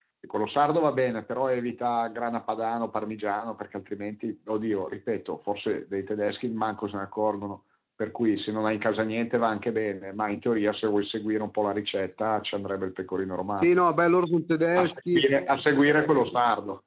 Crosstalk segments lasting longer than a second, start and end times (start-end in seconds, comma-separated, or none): none